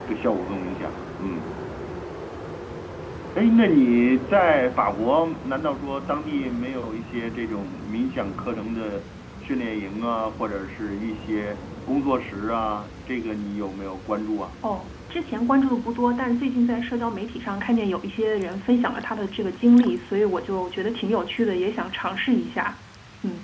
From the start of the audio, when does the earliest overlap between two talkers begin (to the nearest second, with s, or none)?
none